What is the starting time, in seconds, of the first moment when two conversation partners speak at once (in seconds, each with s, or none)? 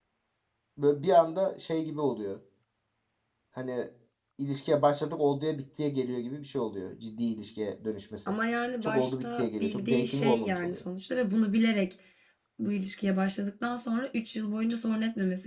8.8 s